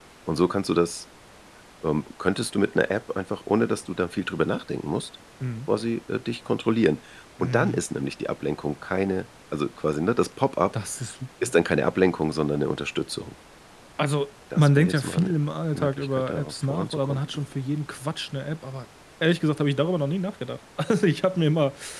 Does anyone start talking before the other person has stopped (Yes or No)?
Yes